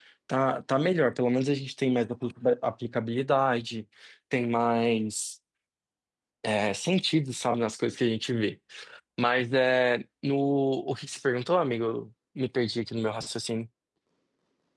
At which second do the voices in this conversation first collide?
none

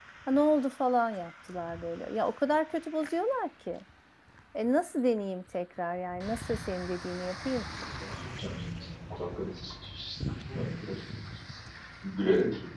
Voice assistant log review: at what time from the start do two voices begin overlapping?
none

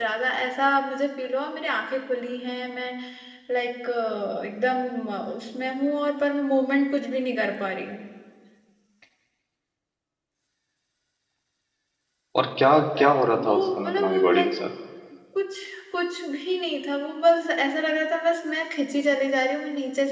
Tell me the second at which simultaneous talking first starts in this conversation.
12.9 s

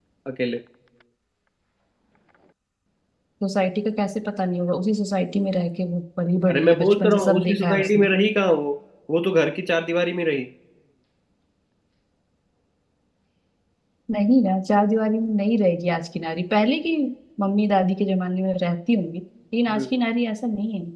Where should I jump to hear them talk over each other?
6.5 s

